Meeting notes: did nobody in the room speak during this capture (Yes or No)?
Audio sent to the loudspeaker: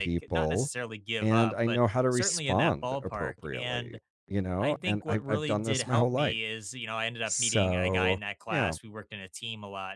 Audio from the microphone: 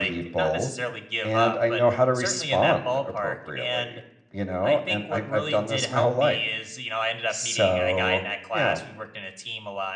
Yes